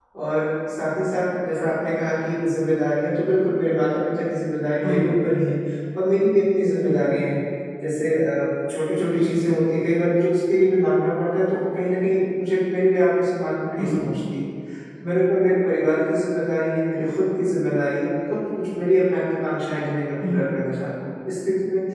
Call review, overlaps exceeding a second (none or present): none